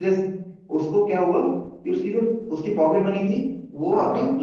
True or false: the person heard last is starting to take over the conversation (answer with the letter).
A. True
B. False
B